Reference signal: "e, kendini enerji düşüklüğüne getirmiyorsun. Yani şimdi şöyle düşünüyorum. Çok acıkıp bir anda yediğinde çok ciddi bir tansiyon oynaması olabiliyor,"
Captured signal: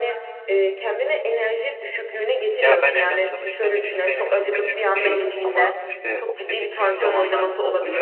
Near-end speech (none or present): present